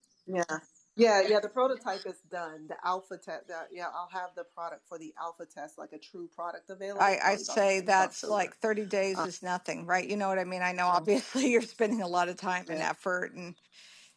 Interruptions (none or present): present